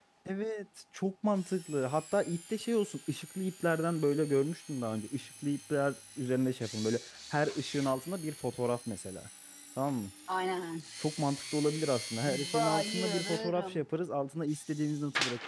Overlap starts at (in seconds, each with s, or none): 12.2 s